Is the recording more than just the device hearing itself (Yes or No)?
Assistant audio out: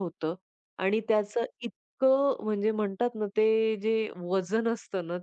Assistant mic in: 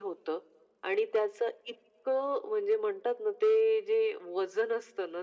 No